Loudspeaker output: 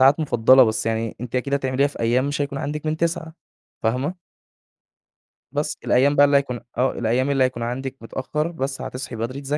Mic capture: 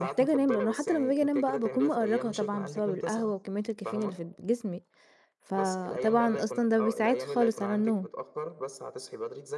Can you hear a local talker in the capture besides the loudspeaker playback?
Yes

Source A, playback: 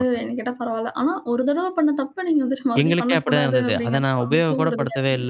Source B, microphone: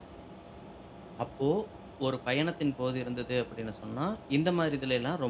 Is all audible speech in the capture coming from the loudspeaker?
No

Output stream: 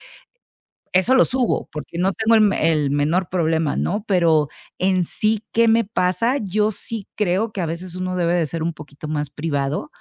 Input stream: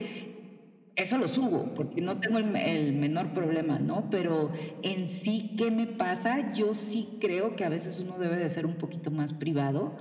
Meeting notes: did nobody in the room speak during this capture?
Yes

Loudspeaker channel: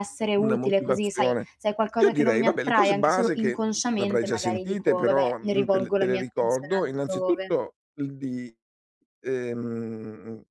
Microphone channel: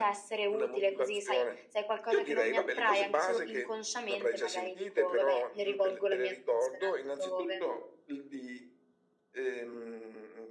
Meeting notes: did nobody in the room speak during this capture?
Yes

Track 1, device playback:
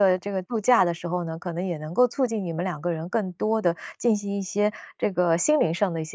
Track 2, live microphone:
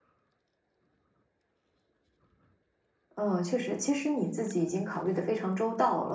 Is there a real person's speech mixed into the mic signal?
Yes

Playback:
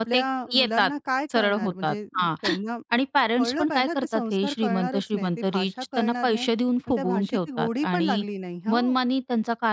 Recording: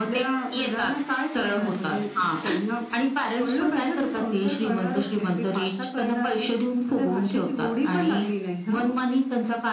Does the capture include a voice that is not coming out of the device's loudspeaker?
No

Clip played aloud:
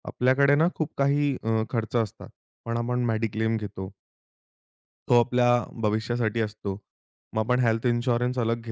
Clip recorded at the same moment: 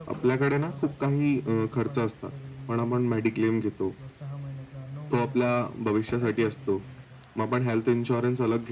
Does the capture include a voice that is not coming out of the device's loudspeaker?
Yes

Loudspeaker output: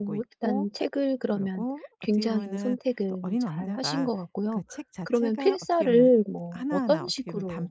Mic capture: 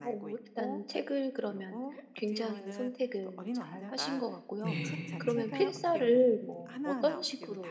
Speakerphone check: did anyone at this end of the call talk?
Yes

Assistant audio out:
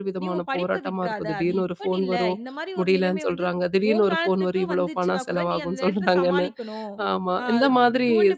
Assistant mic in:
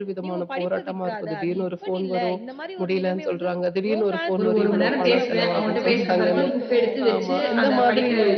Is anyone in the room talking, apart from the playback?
Yes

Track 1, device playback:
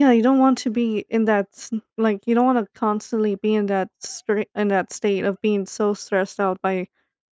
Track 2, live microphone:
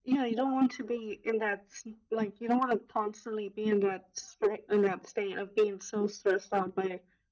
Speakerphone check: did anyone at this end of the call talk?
No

